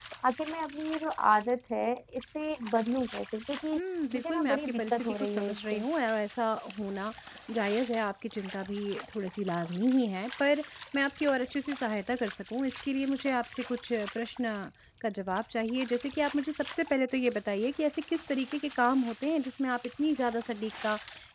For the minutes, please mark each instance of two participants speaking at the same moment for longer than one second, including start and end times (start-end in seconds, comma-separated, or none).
4.2-5.8